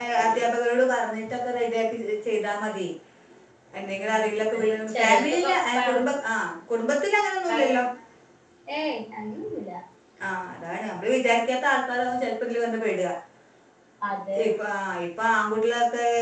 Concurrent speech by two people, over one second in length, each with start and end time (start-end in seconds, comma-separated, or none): 4.0-5.9